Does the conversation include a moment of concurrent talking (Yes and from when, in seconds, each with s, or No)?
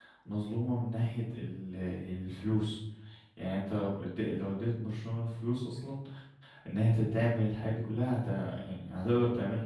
No